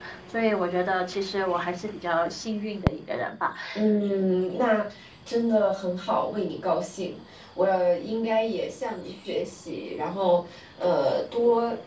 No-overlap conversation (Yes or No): Yes